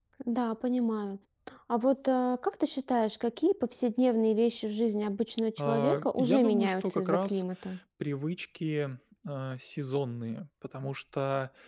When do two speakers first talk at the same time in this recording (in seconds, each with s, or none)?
5.6 s